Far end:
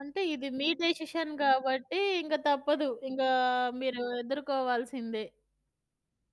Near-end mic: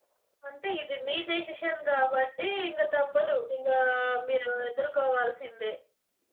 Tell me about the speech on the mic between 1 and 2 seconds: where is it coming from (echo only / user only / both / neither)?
echo only